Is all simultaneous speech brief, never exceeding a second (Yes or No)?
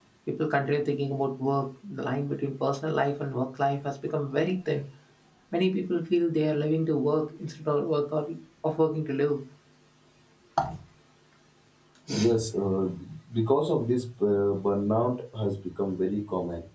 Yes